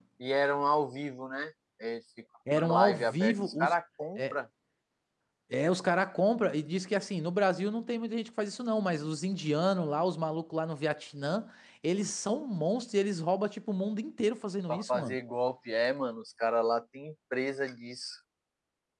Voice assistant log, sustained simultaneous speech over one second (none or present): present